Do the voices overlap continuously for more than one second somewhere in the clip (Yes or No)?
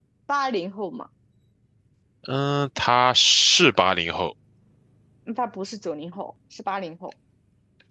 No